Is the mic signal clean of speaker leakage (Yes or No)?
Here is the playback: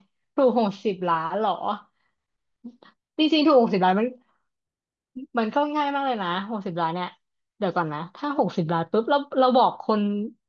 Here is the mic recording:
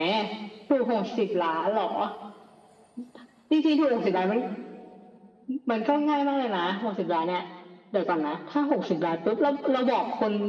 No